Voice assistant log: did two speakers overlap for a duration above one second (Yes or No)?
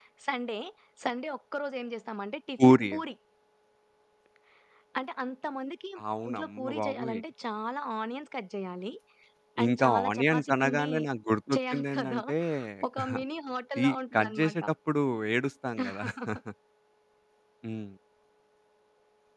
Yes